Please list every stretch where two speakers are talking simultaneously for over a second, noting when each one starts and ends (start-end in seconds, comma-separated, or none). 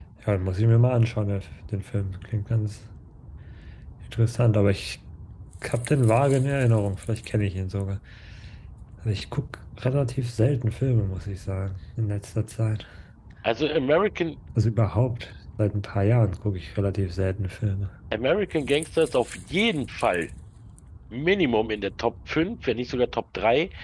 none